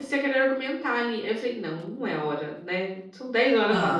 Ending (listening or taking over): listening